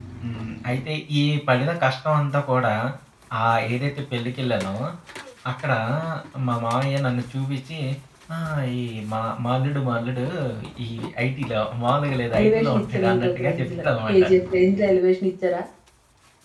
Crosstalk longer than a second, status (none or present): present